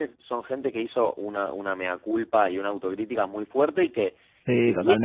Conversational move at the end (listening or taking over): listening